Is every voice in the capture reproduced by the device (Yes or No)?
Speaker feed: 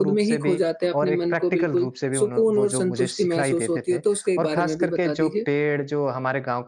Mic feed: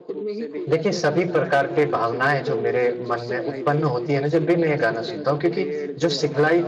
No